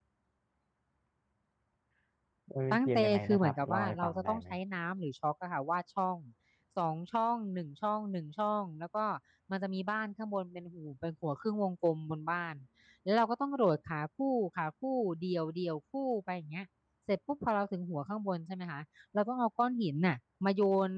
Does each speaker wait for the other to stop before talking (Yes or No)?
No